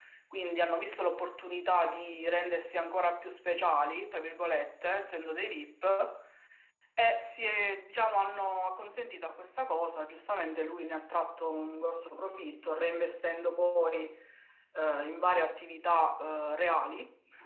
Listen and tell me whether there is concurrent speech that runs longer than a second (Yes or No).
No